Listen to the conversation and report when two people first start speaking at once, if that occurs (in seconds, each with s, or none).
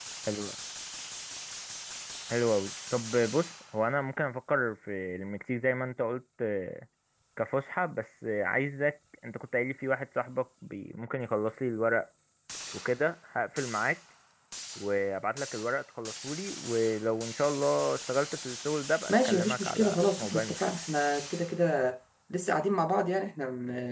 19.1 s